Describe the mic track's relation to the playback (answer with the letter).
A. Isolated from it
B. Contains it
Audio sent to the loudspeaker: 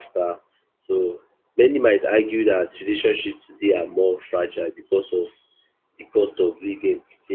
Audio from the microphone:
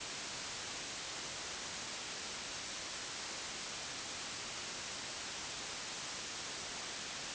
A